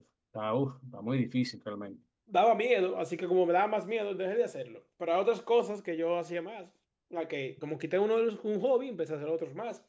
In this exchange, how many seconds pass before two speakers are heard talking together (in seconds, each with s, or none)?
none